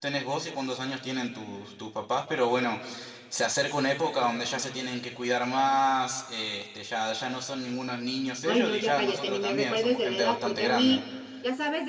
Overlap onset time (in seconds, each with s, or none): 8.5 s